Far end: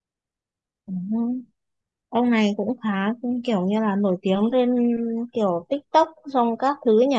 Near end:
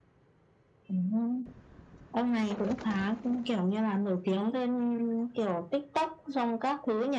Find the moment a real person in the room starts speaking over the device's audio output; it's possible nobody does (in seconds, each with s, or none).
none